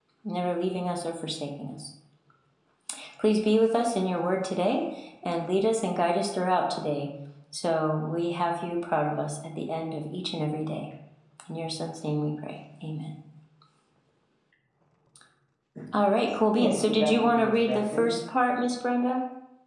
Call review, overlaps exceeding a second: present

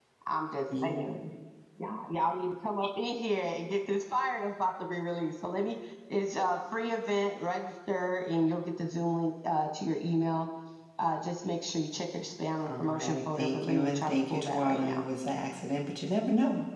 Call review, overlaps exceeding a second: present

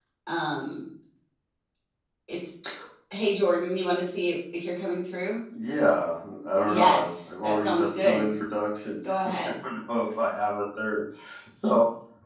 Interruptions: present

